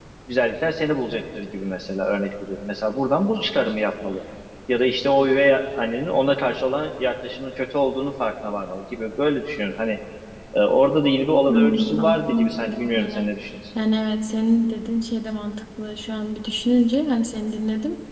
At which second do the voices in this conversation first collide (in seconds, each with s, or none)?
11.5 s